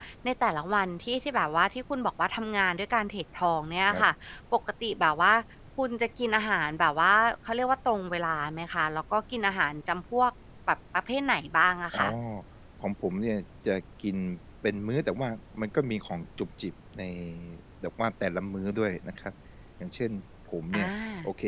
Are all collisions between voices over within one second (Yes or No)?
Yes